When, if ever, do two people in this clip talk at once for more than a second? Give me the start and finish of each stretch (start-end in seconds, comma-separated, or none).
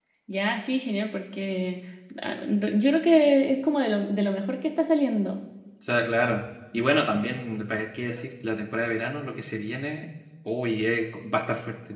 none